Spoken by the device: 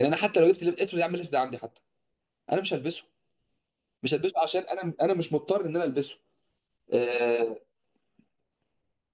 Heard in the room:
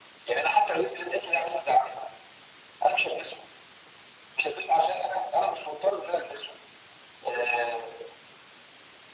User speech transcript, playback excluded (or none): none